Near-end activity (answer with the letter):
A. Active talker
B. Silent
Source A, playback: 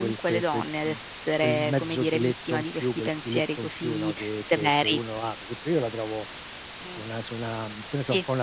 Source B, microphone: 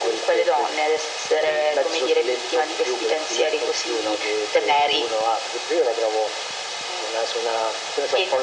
B